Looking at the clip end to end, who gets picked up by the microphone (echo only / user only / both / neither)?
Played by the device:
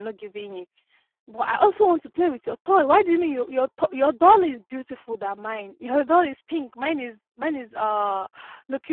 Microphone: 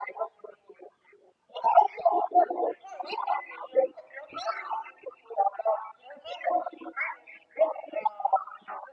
echo only